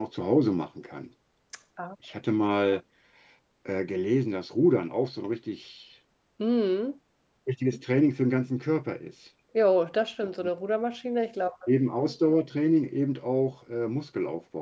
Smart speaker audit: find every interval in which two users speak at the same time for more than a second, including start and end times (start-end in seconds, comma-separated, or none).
none